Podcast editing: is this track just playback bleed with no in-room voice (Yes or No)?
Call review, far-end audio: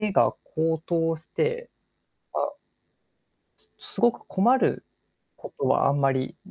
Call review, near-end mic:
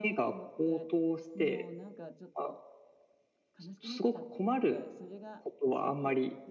No